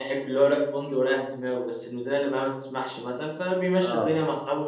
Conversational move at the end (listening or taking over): listening